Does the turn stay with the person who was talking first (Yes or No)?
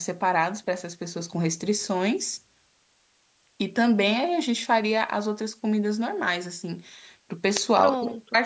Yes